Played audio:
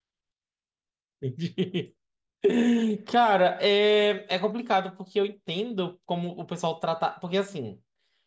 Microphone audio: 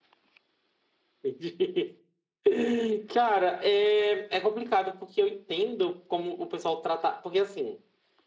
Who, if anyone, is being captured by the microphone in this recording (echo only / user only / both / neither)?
echo only